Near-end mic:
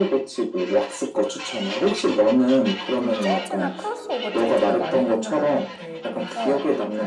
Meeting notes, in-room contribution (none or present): present